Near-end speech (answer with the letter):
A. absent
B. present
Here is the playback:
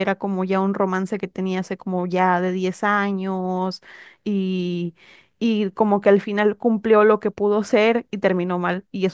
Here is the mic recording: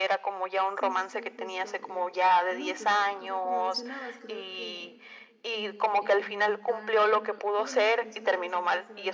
B